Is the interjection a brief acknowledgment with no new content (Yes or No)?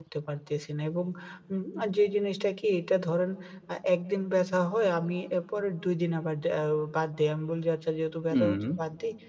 Yes